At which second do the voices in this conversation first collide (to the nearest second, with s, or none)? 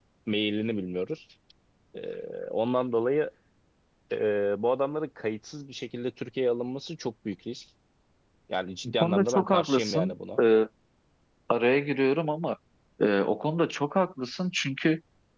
9 s